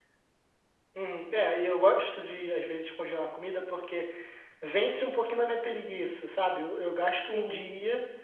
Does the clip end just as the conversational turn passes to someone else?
No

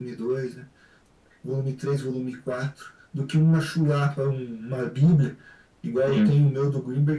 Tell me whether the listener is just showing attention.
Yes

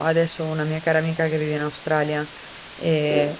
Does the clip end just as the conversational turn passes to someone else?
No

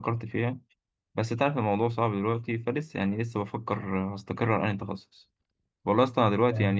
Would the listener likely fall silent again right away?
Yes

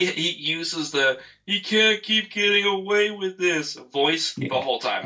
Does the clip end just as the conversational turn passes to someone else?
Yes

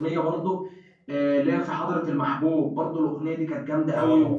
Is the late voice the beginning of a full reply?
Yes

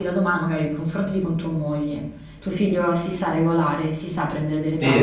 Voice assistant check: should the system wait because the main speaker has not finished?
No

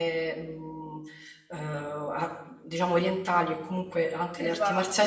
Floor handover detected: No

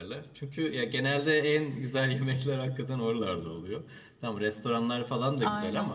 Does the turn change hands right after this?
No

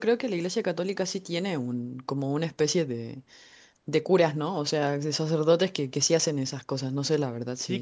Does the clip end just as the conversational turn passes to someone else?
Yes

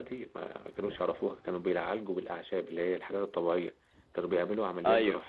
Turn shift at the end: No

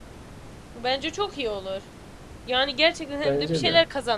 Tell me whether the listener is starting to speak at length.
No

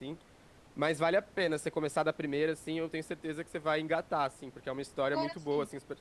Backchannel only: Yes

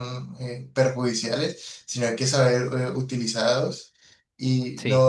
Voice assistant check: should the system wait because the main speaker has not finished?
Yes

